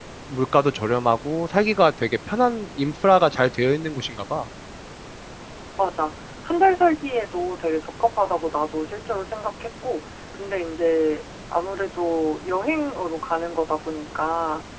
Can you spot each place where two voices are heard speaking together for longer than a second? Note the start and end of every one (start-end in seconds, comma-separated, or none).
none